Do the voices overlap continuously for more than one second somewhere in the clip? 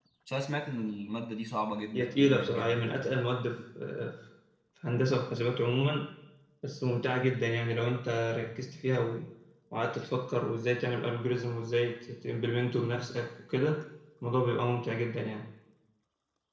Yes, from 1.9 s

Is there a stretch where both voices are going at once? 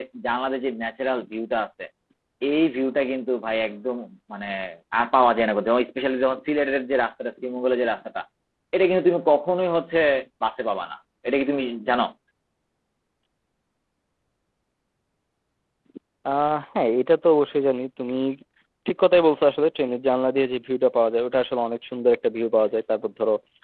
No

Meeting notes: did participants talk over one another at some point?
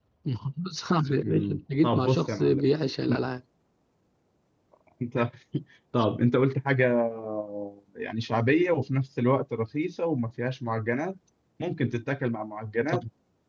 Yes, from 1.2 s

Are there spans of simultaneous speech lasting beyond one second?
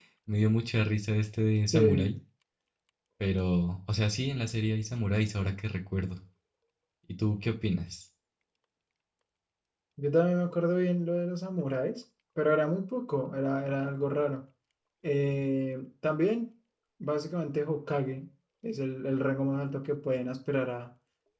No

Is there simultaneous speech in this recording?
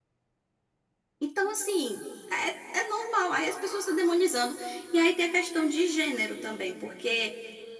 No

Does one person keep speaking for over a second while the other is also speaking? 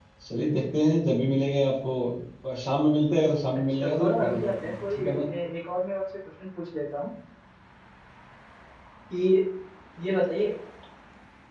Yes, from 3.7 s

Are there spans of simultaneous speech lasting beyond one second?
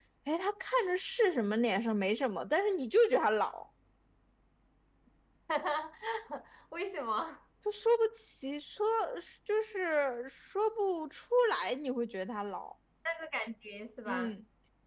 No

